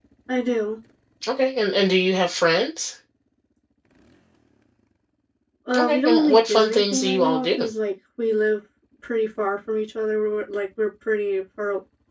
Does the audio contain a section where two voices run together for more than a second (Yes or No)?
Yes